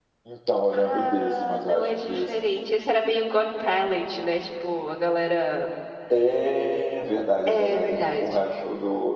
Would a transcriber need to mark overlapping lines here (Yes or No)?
Yes